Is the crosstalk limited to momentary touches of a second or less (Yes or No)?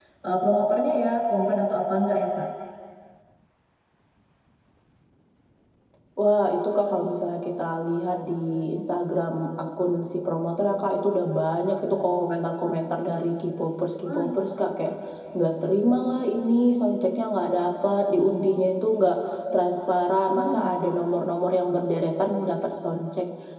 Yes